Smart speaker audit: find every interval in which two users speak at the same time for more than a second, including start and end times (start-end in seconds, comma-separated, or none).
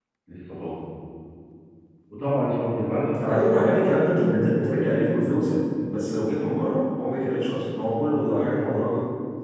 none